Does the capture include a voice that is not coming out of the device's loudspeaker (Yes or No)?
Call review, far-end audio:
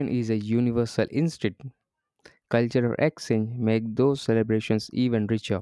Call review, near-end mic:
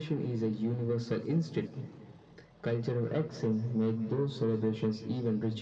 No